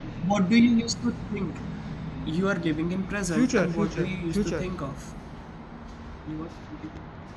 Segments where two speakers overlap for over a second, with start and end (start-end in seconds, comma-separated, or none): 3.3-4.7